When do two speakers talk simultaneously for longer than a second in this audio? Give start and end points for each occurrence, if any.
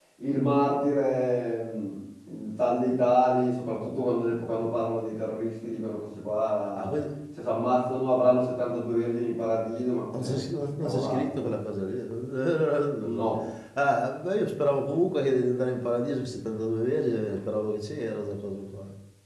none

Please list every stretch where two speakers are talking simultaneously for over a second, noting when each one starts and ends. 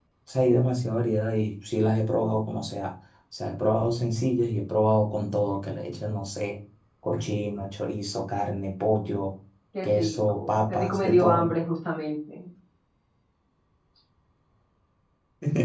9.8-11.5

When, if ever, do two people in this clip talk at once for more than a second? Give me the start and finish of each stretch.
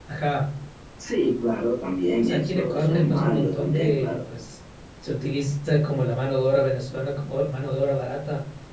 2.2-4.2

